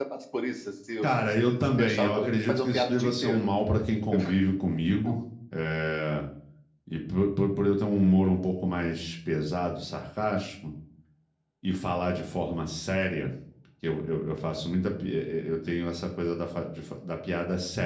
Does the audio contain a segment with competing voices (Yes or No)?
Yes